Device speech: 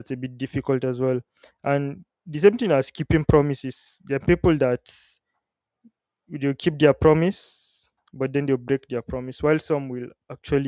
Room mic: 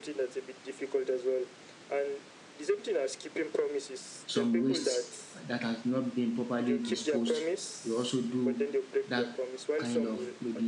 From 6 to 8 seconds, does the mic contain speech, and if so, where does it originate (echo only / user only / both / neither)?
both